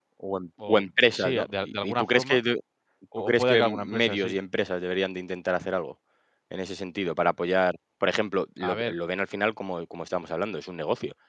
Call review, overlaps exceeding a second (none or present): present